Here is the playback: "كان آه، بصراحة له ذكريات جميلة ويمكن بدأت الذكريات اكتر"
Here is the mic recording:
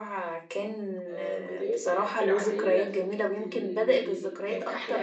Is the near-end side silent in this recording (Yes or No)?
No